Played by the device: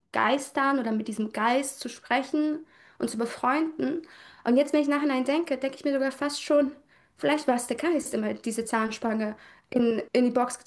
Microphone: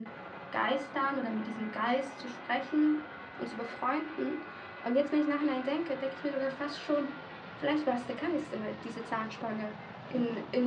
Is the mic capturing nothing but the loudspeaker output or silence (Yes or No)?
Yes